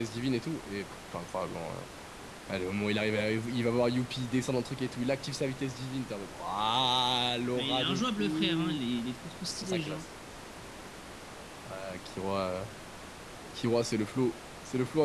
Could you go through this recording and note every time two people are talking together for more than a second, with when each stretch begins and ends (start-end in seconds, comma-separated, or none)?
7.5-8.8